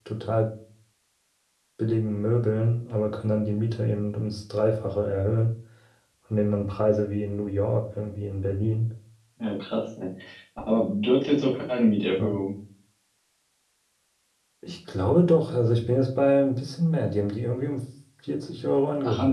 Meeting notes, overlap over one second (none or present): none